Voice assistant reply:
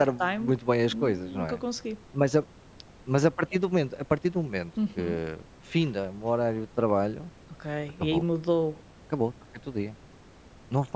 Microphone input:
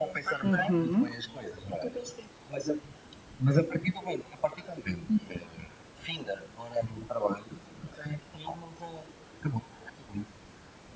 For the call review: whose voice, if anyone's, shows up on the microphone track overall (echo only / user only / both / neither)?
both